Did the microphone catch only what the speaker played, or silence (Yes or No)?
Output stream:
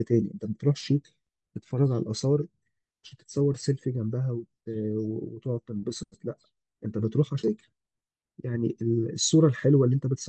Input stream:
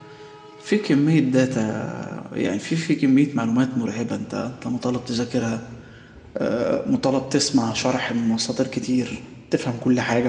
No